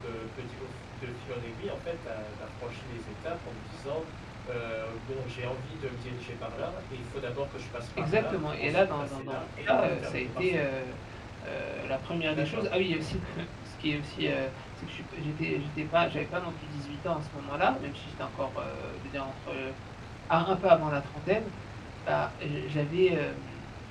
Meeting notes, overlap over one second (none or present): present